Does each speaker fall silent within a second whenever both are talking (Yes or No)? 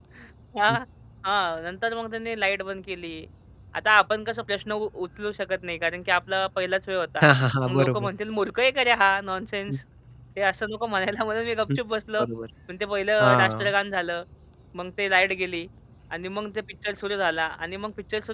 Yes